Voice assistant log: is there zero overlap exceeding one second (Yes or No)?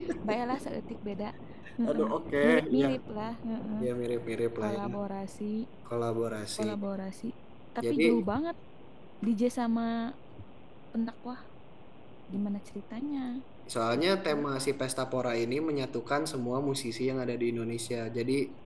Yes